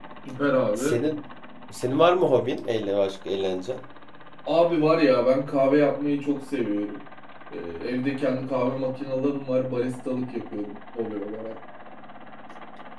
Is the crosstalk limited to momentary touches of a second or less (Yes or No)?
Yes